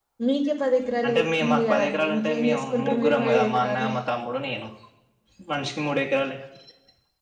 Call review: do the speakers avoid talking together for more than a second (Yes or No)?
No